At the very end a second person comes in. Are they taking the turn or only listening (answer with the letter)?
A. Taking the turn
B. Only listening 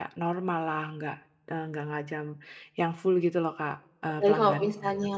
A